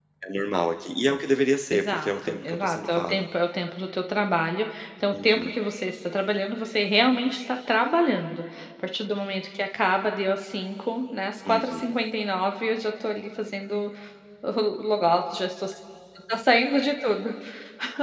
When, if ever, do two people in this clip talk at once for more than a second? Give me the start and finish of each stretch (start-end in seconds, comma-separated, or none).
1.7-3.2